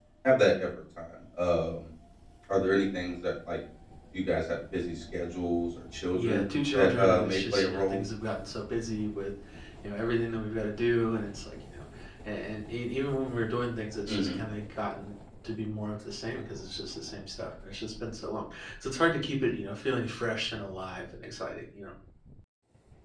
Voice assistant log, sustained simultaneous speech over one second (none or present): present